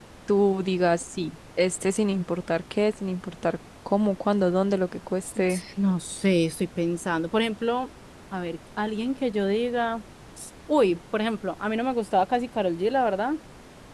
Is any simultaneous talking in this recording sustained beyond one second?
No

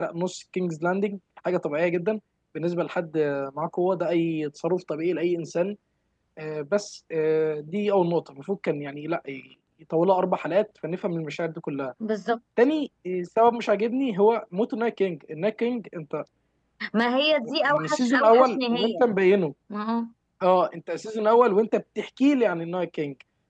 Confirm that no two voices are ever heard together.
No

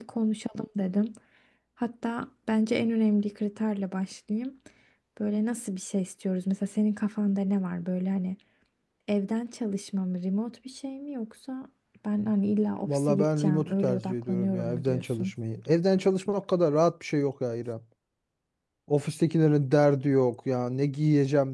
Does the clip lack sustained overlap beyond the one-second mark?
No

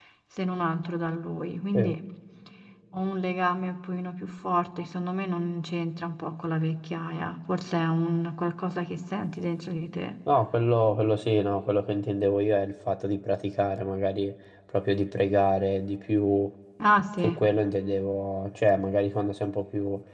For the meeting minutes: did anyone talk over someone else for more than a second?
No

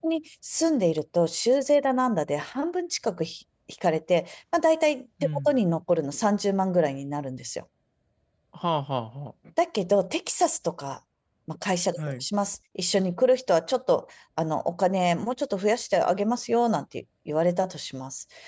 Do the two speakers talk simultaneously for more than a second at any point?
No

